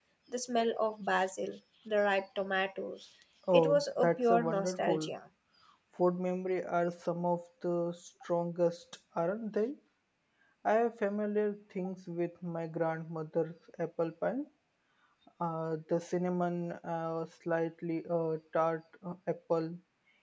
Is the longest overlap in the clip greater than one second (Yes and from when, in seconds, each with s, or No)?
Yes, from 3.5 s